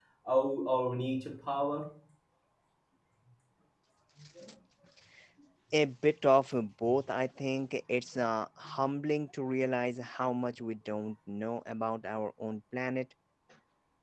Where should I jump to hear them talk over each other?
none

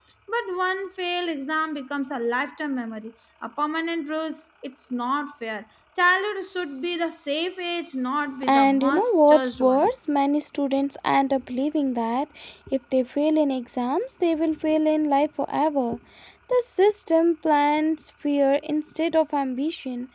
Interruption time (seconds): 8.4 s

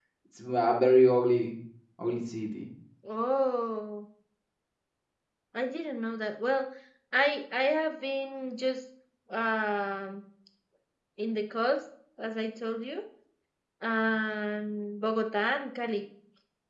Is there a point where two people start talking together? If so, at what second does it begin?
none

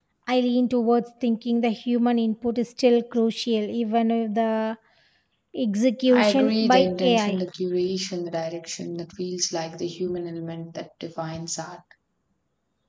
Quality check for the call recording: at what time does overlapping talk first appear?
6.1 s

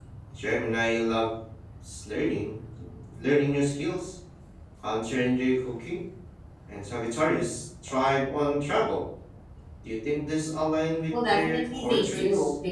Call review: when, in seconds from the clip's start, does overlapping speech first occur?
11.1 s

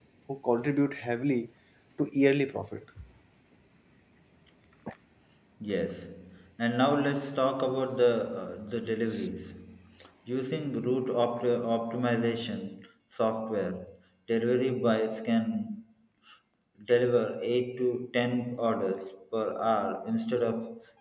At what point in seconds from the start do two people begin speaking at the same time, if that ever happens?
none

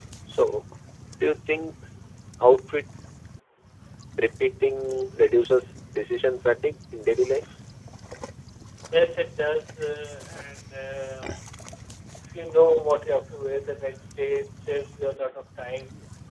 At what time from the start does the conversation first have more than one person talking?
none

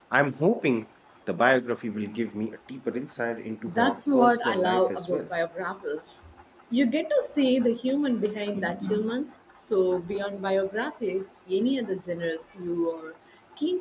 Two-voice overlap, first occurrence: 3.7 s

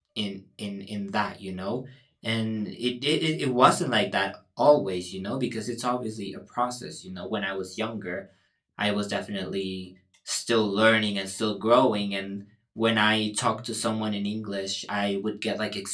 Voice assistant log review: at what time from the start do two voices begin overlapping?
none

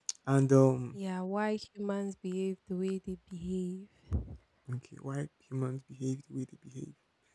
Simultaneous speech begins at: none

